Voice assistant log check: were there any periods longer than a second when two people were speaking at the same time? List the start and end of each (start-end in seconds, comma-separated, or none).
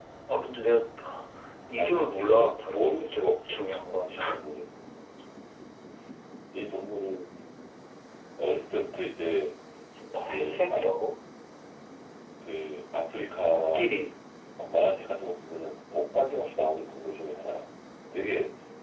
1.7-3.6